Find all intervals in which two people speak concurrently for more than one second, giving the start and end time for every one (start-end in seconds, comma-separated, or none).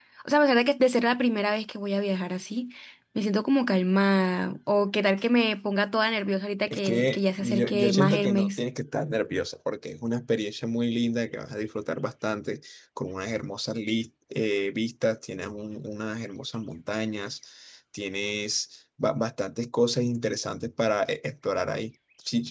6.7-8.6